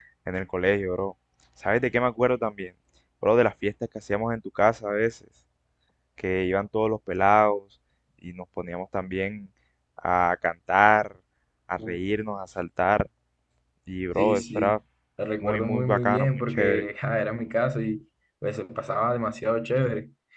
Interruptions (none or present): present